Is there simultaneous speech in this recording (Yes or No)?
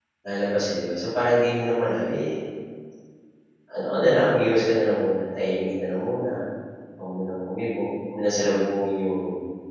No